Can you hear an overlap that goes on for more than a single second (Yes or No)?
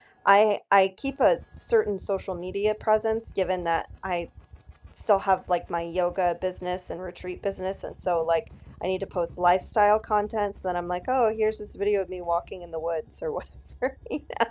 No